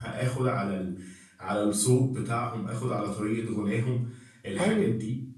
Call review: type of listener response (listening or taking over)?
taking over